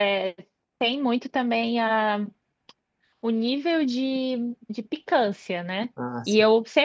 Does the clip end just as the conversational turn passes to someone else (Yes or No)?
No